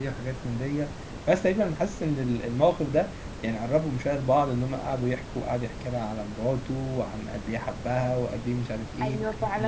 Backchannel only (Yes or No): No